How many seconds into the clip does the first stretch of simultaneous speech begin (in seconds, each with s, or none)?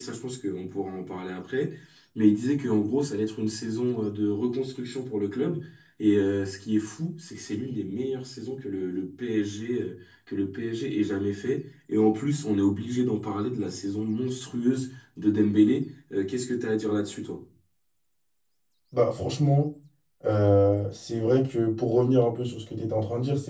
none